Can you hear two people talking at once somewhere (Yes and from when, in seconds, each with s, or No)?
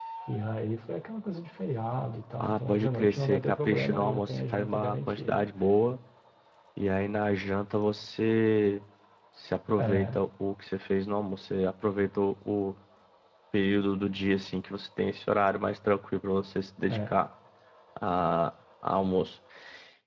Yes, from 2.4 s